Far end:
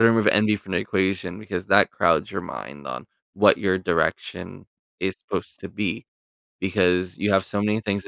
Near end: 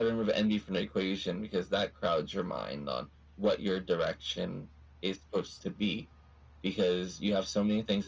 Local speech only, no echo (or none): none